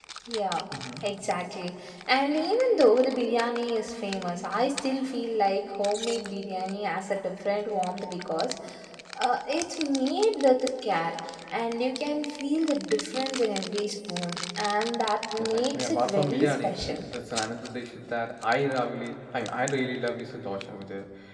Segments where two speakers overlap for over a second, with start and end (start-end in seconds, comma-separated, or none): 15.4-17.0